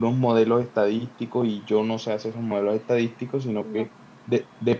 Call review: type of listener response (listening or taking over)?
listening